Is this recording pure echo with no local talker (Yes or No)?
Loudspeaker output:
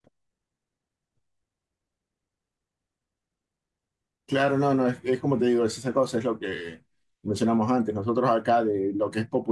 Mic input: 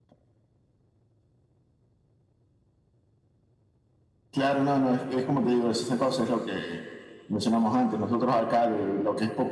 Yes